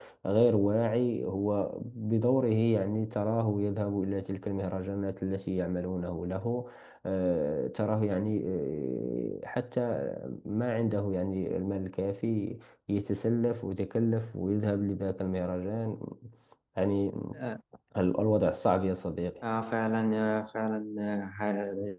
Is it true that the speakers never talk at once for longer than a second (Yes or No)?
Yes